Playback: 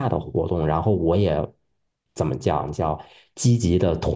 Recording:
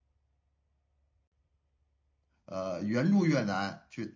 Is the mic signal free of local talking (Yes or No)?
No